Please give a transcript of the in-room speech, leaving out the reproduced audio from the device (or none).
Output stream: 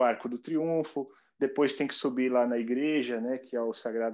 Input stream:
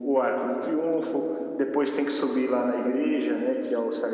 none